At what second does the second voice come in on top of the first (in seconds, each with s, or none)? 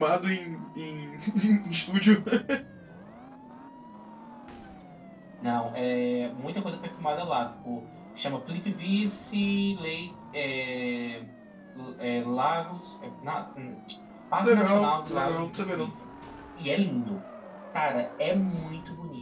14.4 s